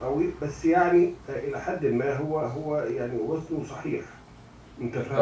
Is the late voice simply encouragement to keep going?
No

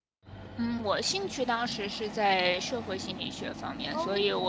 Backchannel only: Yes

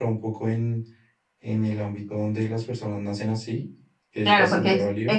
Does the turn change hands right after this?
Yes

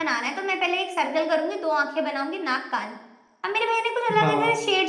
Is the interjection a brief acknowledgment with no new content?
Yes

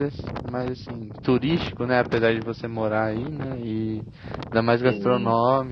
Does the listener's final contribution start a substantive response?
No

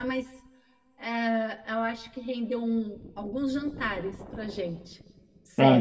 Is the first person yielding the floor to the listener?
Yes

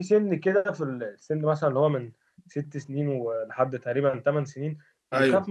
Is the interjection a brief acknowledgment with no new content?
Yes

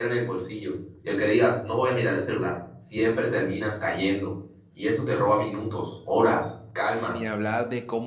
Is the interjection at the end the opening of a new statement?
Yes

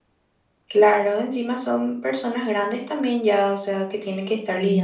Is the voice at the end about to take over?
Yes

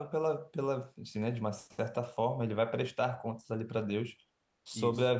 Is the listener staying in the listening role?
Yes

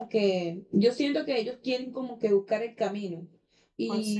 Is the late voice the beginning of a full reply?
No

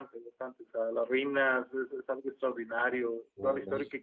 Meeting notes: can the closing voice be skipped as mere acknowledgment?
Yes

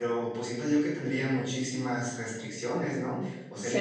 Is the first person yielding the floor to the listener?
Yes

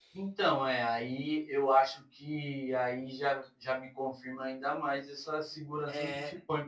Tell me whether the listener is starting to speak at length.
No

